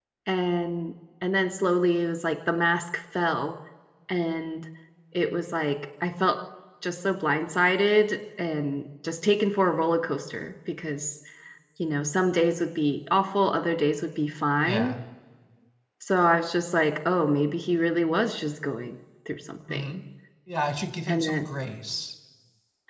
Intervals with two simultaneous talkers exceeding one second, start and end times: none

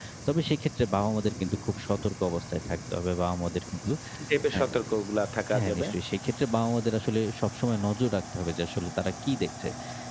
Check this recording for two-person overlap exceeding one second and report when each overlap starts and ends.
none

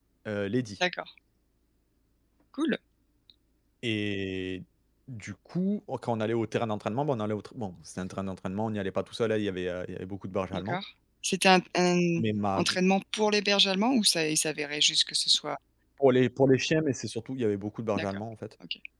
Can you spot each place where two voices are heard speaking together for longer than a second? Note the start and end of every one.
none

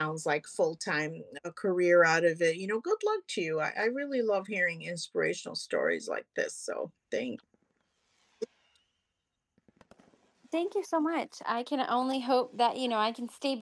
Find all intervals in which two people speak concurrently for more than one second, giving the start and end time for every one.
none

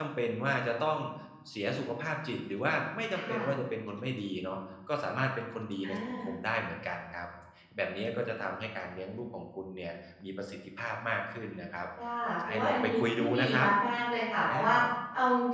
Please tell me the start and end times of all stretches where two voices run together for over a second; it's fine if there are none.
12.2-13.5

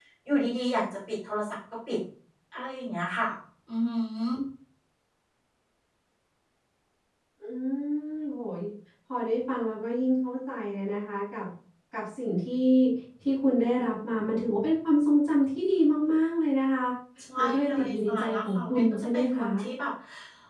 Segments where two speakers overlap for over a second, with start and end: 17.4-19.5

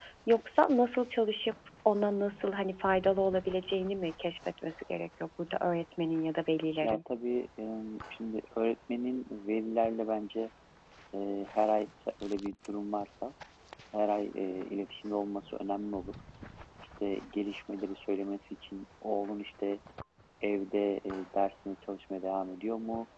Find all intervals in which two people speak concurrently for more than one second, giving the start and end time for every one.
none

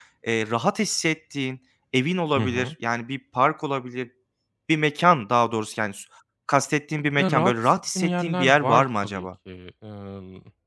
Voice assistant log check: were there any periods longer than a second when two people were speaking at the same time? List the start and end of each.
7.2-9.3

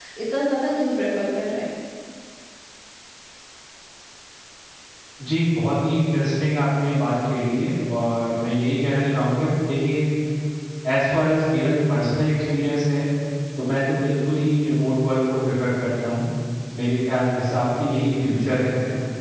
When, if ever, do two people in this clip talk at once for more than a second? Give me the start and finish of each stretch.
none

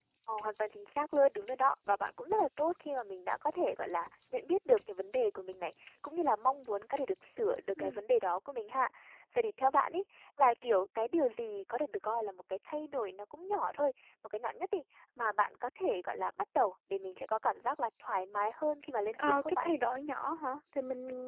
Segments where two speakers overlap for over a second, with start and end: none

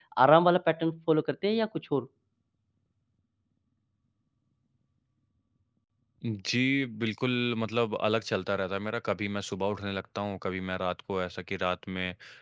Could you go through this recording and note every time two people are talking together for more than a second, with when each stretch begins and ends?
none

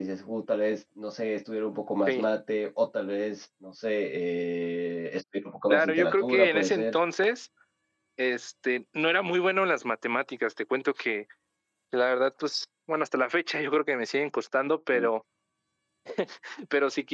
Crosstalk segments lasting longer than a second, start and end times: 5.7-7.0

